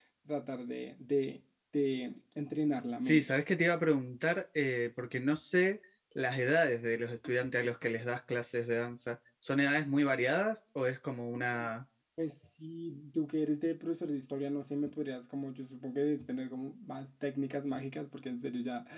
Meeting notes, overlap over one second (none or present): none